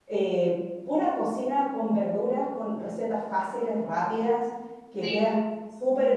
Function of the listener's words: listening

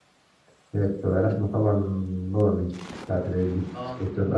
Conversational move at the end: taking over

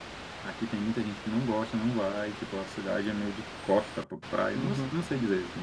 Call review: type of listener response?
listening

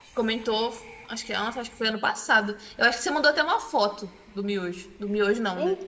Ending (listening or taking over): taking over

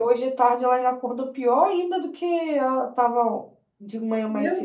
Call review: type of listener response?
taking over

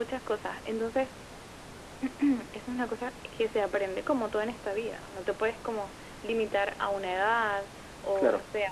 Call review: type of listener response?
listening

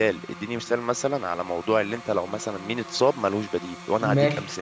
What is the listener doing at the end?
taking over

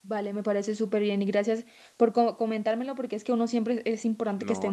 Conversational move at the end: taking over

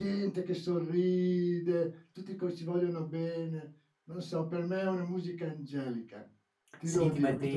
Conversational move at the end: taking over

